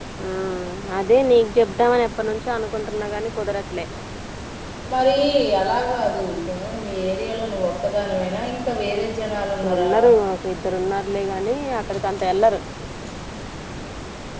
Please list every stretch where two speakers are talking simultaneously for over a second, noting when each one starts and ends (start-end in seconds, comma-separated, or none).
none